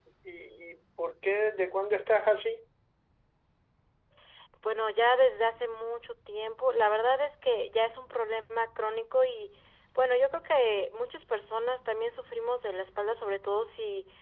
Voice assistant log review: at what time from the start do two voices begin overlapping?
none

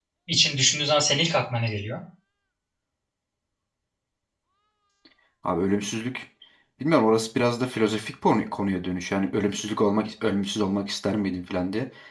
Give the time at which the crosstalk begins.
none

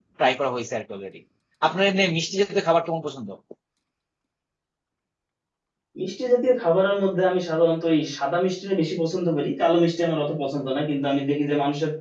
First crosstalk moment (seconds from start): none

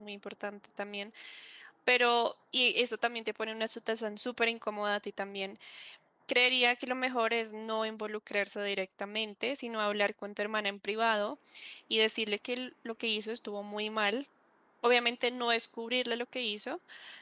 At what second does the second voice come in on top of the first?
none

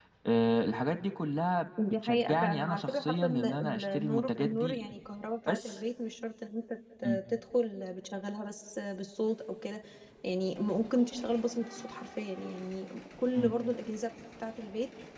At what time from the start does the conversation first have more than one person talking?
2.0 s

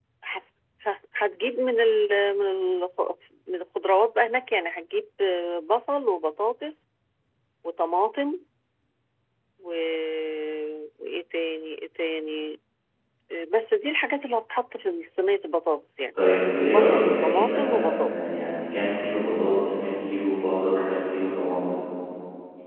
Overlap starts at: 16.7 s

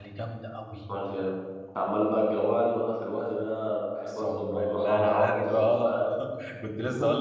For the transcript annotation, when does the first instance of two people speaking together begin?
4.1 s

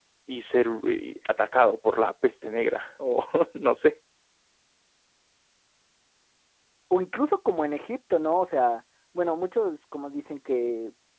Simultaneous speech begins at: none

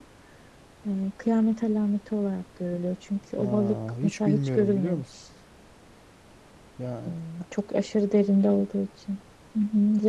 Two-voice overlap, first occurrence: 3.4 s

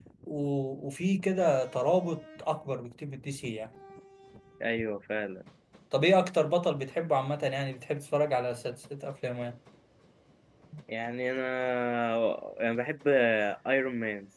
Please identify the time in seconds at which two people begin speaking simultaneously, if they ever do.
none

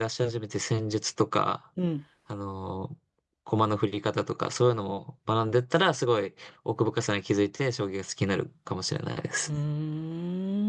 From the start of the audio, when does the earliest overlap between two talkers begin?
none

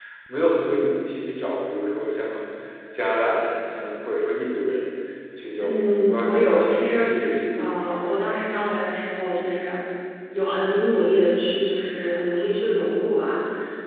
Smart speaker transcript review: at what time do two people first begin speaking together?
5.6 s

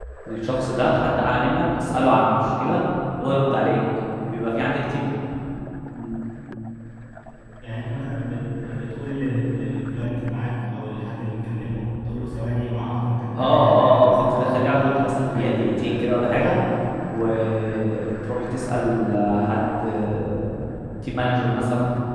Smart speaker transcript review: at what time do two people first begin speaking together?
13.4 s

